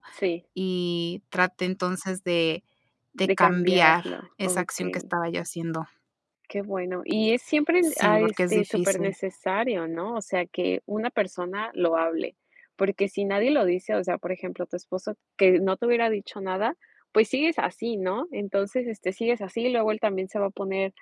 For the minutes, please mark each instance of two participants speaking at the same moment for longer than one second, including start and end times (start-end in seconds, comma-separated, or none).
3.2-5.0, 7.8-9.1